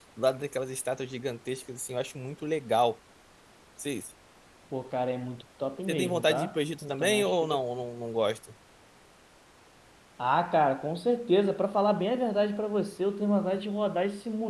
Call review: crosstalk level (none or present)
present